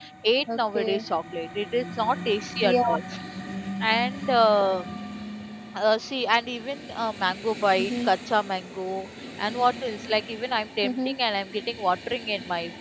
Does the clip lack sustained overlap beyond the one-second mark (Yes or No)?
Yes